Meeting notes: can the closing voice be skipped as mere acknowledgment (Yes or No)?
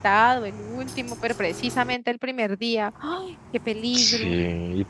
No